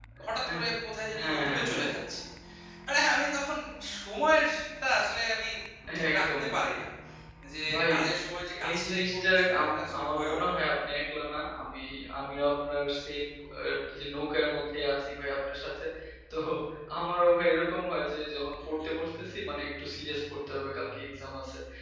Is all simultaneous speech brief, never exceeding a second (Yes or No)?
No